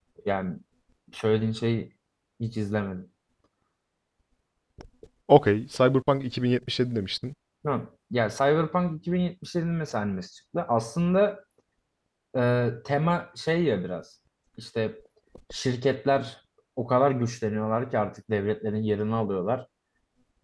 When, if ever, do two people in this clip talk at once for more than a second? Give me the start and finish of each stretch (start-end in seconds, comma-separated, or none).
none